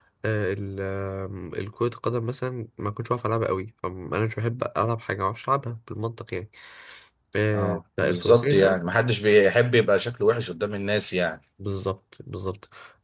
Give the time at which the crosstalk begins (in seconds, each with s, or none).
7.6 s